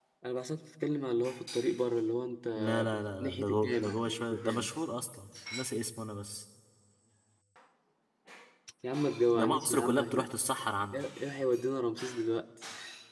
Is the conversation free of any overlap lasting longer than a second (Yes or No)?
No